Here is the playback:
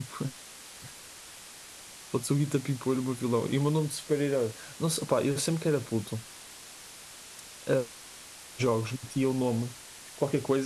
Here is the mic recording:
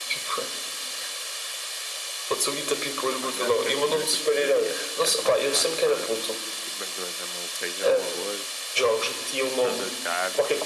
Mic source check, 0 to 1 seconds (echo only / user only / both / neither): echo only